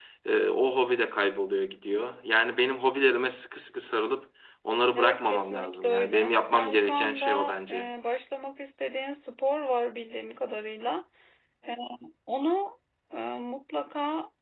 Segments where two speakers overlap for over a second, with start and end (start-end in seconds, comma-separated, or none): 5.0-7.9